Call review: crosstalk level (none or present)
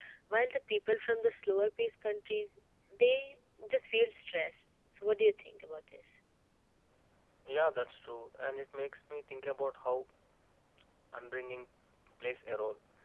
none